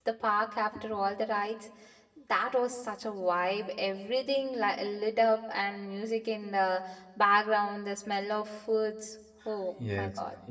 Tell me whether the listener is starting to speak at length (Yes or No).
Yes